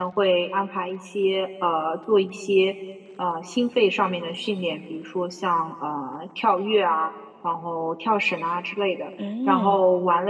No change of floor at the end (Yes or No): Yes